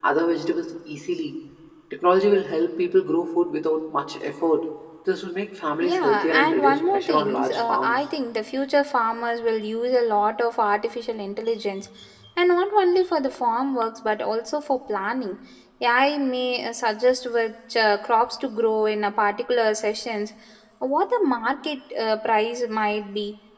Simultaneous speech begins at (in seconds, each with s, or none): 5.8 s